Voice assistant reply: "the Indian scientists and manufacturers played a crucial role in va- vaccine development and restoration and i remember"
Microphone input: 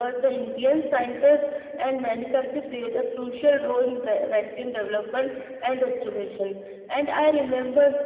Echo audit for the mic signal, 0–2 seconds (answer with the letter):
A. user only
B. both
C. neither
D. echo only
D